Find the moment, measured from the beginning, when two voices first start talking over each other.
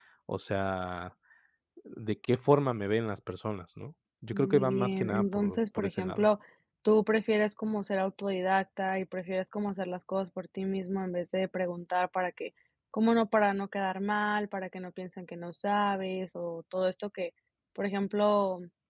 4.3 s

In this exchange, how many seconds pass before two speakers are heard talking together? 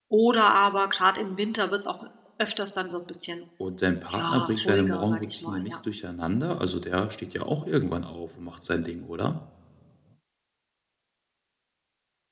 4.1 s

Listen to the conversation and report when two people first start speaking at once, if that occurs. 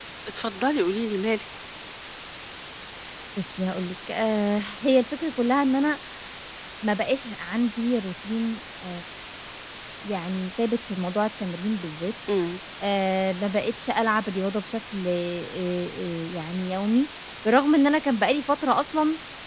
none

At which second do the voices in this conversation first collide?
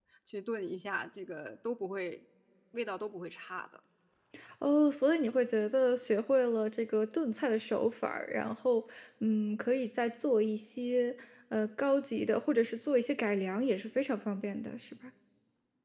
none

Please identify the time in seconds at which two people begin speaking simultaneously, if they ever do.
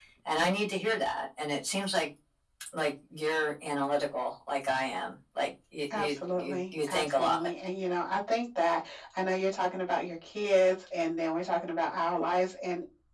5.9 s

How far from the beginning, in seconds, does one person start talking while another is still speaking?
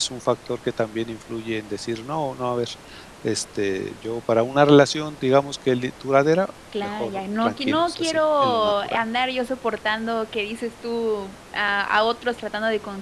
6.7 s

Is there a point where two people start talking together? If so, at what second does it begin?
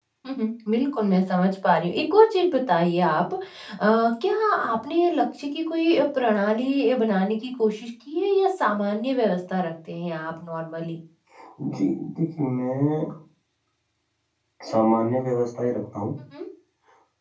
none

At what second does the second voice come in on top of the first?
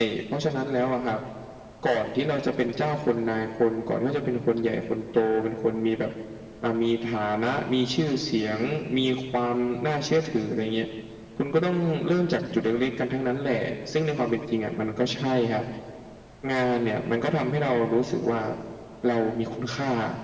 none

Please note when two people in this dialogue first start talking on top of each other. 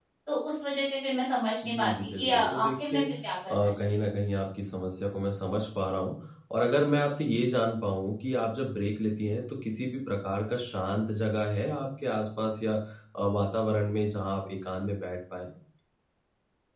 1.6 s

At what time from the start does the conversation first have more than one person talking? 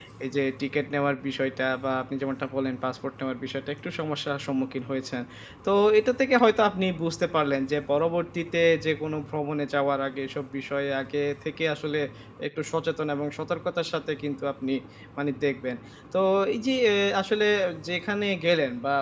none

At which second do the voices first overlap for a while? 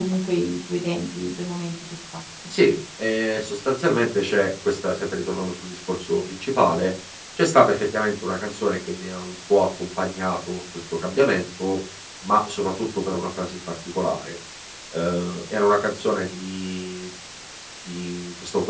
none

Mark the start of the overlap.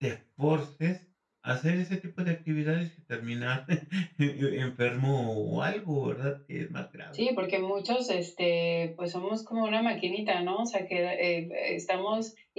none

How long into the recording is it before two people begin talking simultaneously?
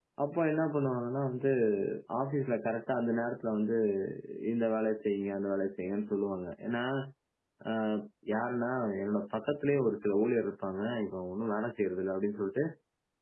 none

